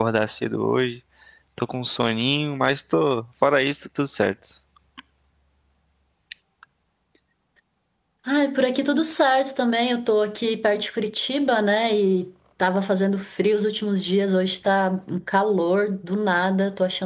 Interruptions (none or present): none